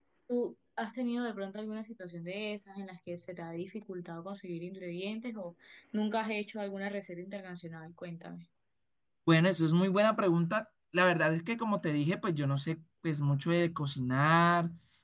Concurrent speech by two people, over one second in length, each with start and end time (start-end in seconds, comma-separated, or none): none